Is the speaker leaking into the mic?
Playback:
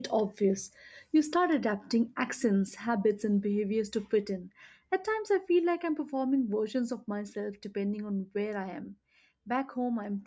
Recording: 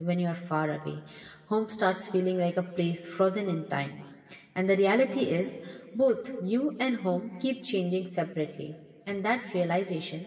No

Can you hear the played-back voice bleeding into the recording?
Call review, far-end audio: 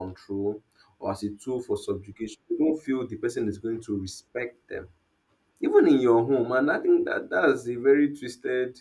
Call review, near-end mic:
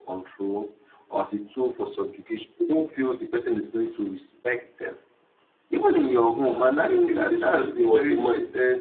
Yes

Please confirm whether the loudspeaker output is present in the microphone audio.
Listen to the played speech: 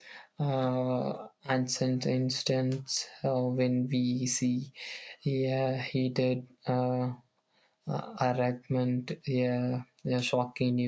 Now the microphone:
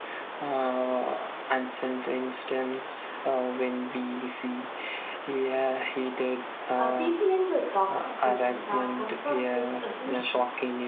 Yes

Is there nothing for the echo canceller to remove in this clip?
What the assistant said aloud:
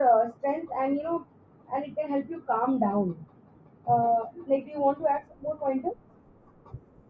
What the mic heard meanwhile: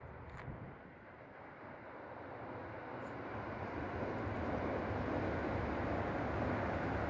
Yes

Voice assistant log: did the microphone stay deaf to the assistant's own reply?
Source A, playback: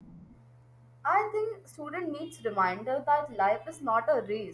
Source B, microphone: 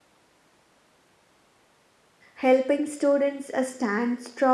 Yes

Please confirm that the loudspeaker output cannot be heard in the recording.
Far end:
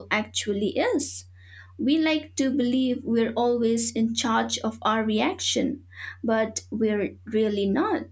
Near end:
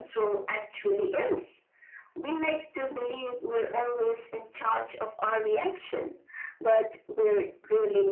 No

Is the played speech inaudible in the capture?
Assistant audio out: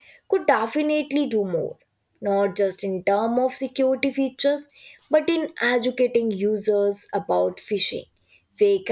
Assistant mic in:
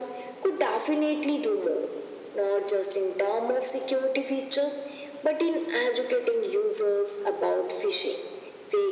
No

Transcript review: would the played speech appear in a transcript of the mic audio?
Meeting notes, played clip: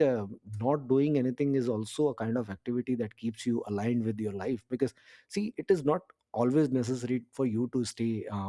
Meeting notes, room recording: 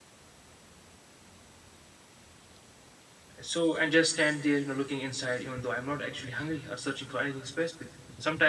No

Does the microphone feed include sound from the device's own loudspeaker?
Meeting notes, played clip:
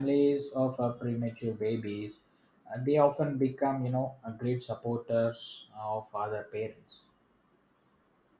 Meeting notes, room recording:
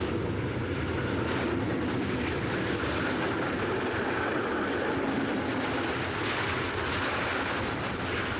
No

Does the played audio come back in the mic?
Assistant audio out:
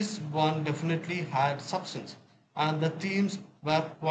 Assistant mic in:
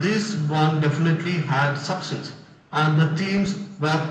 Yes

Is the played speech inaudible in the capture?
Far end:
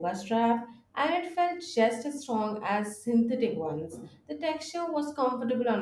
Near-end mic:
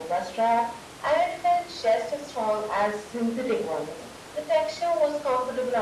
No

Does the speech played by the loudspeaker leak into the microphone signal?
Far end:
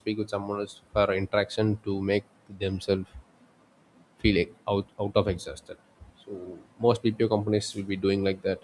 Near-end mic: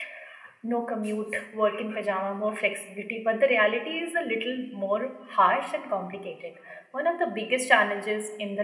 No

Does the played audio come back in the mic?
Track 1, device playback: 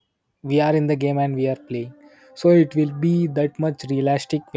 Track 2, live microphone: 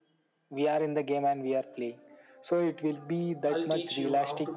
Yes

